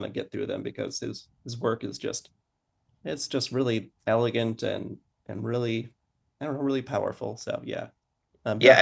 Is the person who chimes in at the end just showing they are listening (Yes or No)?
No